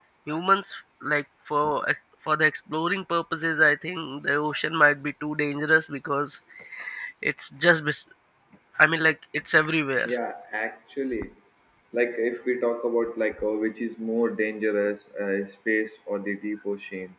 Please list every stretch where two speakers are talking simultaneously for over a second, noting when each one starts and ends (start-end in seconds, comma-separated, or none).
none